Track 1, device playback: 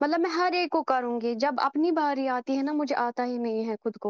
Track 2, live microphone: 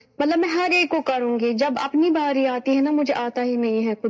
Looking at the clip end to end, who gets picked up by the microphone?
echo only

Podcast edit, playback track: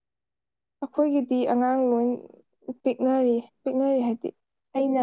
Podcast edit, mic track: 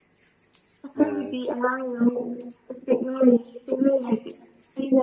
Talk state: both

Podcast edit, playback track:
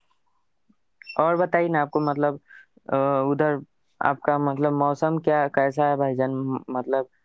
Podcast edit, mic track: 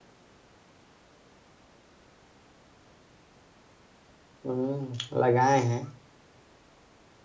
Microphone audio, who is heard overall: user only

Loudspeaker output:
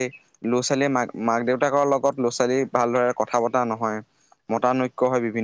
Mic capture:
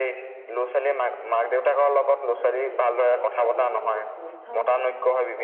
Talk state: both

